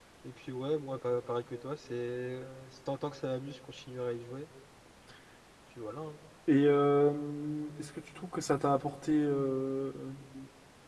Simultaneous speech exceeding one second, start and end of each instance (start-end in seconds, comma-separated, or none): none